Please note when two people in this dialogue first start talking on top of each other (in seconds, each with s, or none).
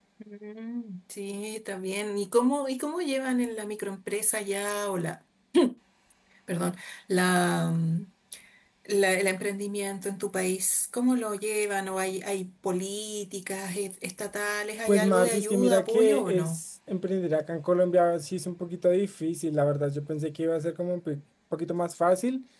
14.9 s